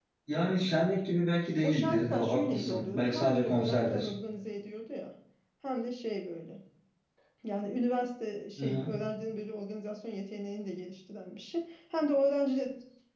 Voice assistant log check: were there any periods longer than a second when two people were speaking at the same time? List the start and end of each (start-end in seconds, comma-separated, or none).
1.6-4.1